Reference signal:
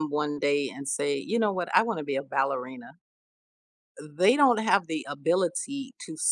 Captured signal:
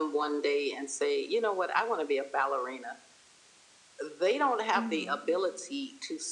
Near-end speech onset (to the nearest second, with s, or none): 5 s